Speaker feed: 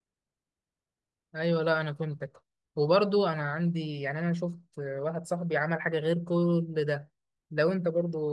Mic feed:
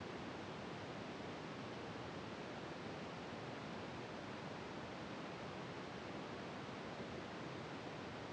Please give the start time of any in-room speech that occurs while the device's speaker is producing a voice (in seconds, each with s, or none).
none